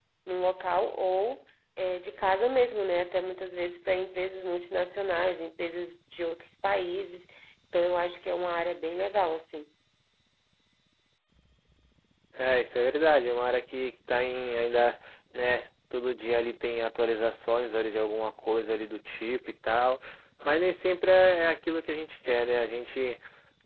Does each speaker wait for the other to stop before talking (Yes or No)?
Yes